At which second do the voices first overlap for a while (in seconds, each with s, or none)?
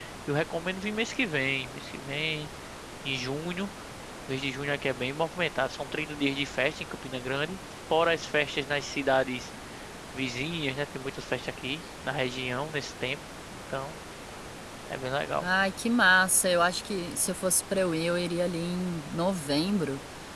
none